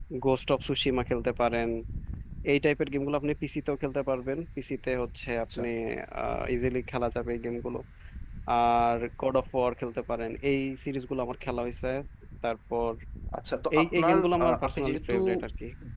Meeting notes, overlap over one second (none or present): present